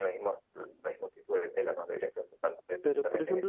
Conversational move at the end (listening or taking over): taking over